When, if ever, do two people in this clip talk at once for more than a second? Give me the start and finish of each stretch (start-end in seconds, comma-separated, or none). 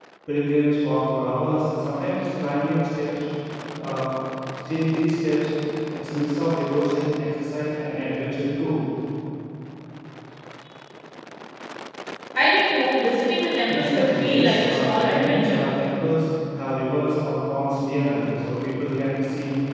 13.6-15.6